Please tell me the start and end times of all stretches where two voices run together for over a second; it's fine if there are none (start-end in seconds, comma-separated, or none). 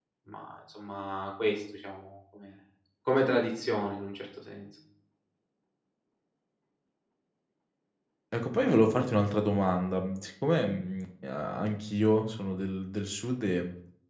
none